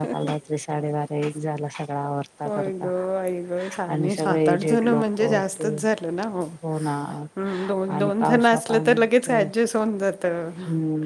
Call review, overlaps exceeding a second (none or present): present